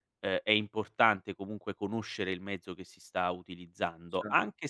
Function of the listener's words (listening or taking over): listening